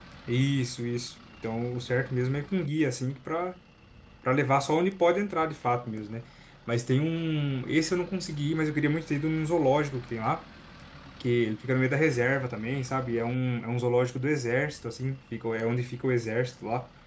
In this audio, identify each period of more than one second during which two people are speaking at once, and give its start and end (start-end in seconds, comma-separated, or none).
none